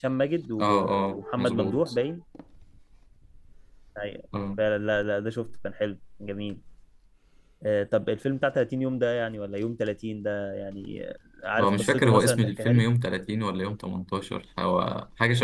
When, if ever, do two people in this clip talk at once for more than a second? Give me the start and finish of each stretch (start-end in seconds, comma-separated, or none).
0.6-1.9, 11.6-12.8